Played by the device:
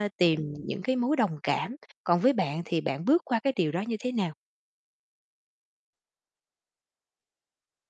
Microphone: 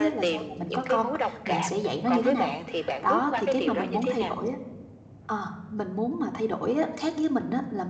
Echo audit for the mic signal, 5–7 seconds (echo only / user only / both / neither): user only